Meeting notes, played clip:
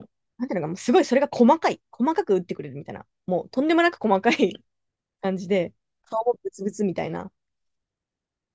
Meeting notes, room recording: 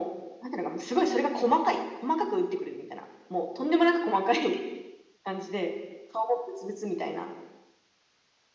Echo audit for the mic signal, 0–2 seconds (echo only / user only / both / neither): echo only